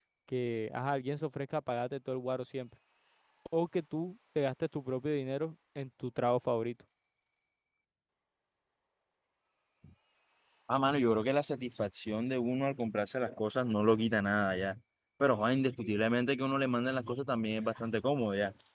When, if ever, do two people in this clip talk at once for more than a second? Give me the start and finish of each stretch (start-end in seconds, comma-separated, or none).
none